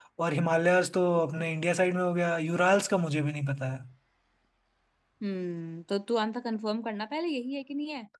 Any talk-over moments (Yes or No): No